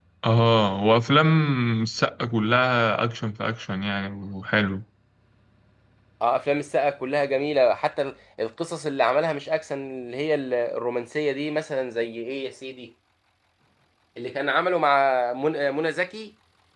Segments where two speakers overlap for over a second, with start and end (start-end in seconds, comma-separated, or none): none